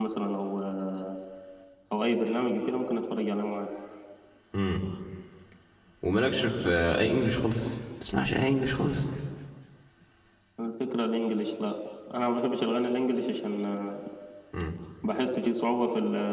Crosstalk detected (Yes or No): No